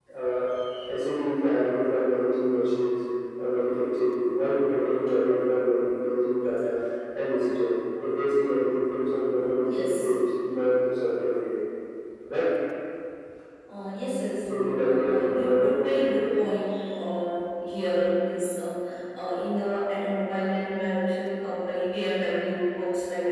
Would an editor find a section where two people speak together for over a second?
Yes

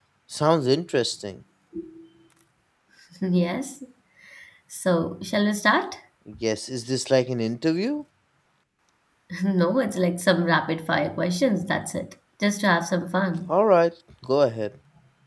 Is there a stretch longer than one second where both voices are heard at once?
No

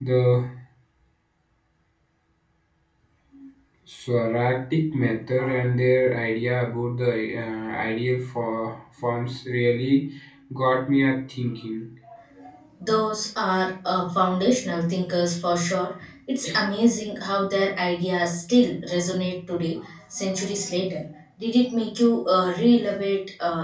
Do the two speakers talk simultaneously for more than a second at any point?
No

